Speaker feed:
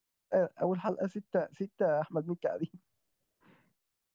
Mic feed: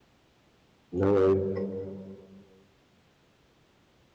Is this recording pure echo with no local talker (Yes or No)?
No